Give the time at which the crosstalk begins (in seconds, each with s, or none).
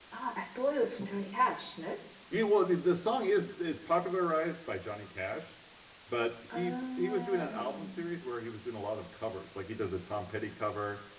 6.5 s